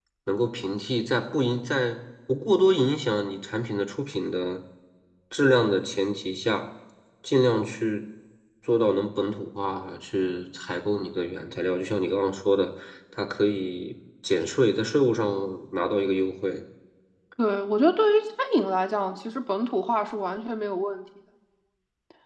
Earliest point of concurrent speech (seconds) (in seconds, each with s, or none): none